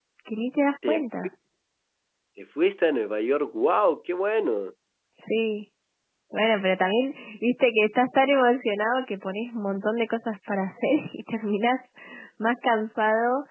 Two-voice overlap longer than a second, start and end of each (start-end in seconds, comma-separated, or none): none